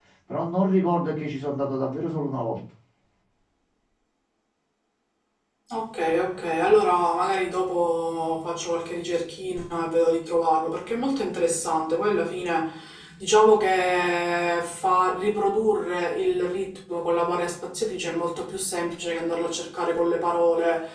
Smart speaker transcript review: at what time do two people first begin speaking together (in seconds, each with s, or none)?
none